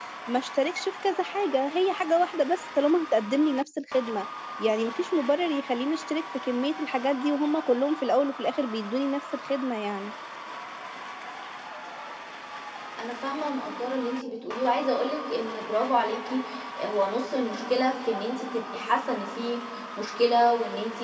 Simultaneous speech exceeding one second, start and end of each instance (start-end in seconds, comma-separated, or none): none